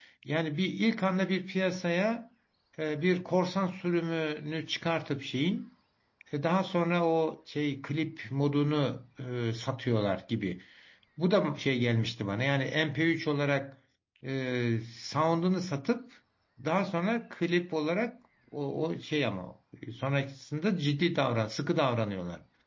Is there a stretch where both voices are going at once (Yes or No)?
No